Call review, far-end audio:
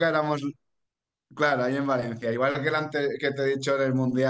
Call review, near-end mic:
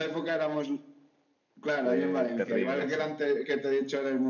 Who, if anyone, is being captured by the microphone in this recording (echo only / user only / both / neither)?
both